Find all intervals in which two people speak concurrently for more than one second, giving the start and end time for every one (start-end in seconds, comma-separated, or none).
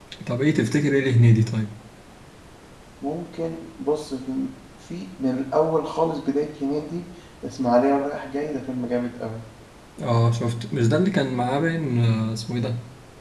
none